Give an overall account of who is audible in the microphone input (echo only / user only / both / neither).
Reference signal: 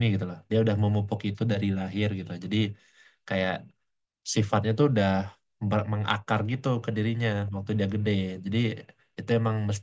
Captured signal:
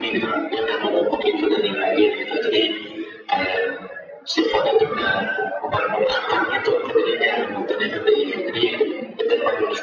echo only